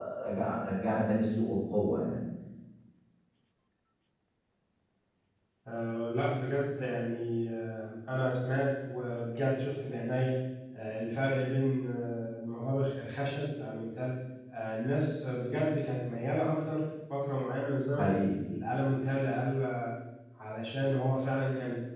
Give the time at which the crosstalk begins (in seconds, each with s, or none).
none